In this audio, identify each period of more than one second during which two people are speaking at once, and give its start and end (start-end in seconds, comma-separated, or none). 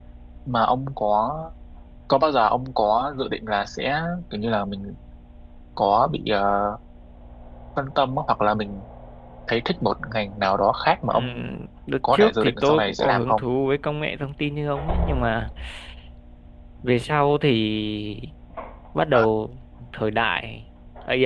12.1-13.4